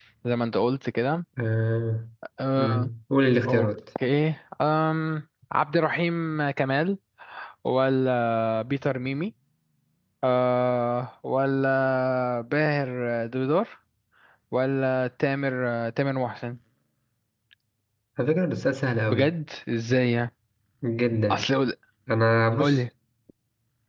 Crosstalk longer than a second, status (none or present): none